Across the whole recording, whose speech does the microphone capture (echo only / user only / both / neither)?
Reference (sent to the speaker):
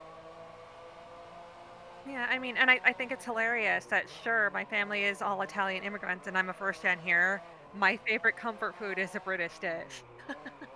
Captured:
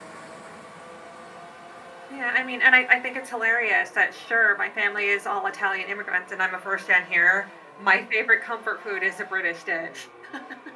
echo only